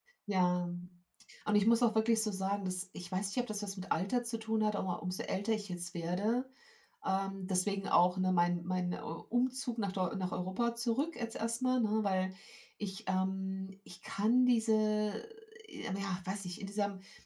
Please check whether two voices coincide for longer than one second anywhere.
No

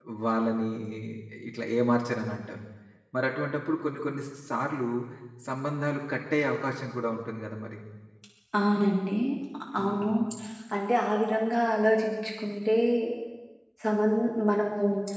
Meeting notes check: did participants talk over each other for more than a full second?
No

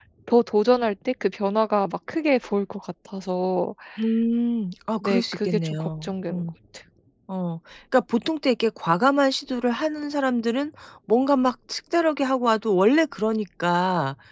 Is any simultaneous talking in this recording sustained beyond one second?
Yes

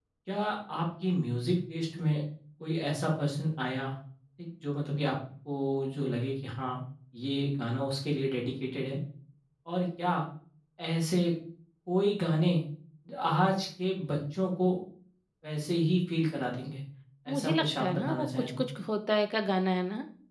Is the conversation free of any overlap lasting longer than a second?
No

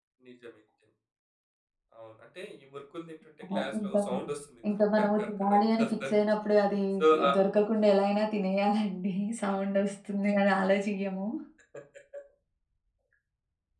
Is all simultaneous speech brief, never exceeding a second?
No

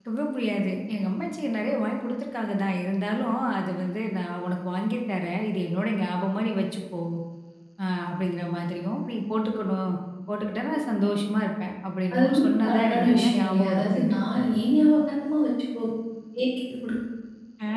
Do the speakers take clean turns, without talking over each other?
No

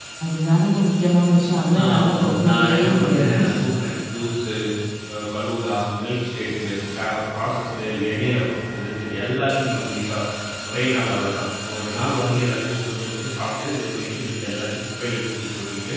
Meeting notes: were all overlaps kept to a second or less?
No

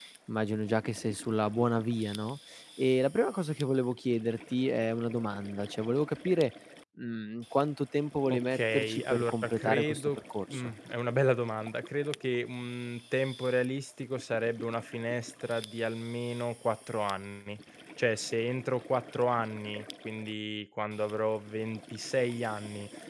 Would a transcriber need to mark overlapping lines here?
Yes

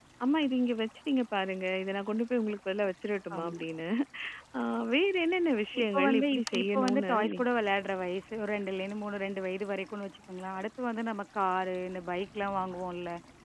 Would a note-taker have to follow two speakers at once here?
Yes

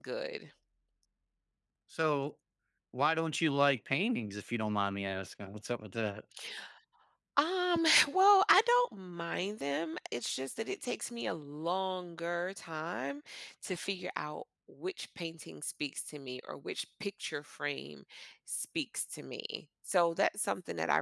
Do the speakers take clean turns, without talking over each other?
Yes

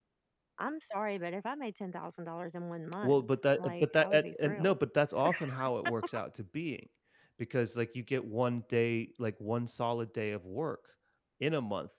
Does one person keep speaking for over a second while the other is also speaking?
Yes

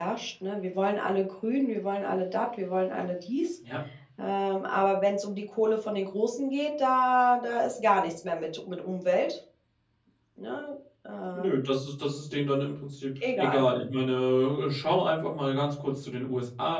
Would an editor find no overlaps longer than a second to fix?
Yes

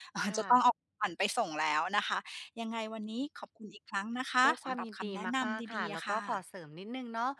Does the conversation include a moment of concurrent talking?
Yes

